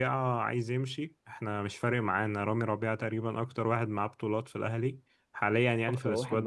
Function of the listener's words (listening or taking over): taking over